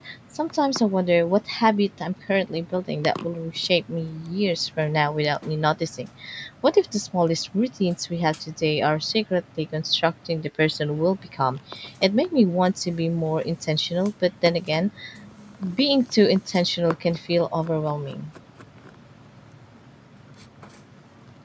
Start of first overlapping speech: none

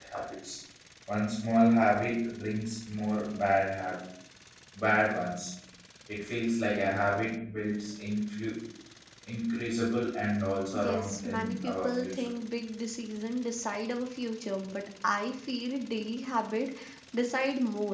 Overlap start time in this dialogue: 10.7 s

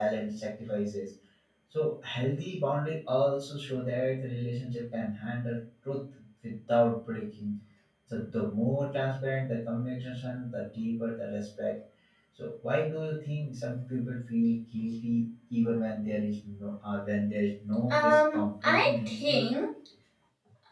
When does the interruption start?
17.9 s

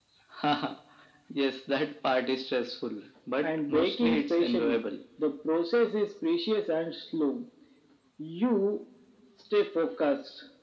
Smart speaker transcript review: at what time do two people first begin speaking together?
3.4 s

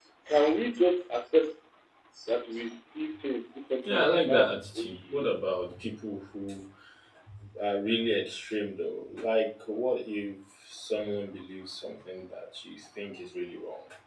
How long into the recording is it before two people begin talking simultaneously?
3.8 s

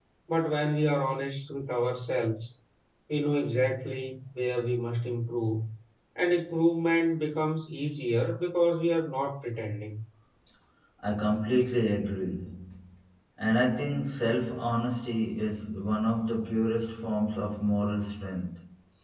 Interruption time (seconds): none

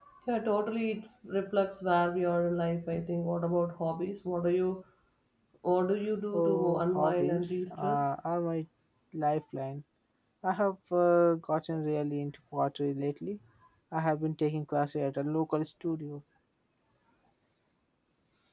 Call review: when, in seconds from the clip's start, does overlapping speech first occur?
6.3 s

